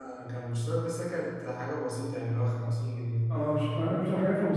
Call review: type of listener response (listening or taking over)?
taking over